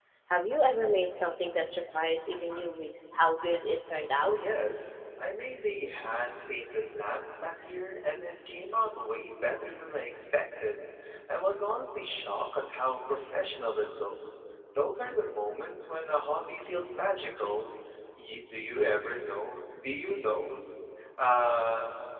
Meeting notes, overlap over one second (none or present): none